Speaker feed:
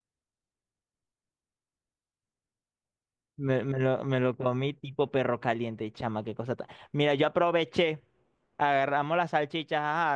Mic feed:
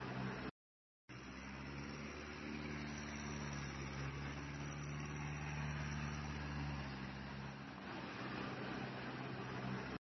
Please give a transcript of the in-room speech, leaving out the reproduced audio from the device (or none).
none